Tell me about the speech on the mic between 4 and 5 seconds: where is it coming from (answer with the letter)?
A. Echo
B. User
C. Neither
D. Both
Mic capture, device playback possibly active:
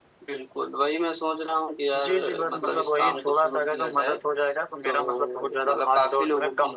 A